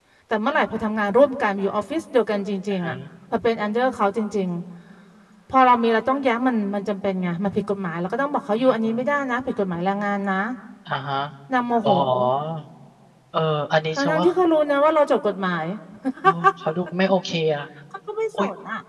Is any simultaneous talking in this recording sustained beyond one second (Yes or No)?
No